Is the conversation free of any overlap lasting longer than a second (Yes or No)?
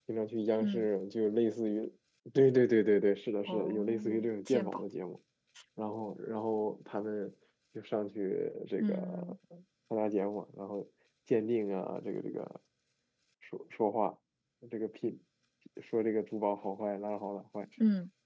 No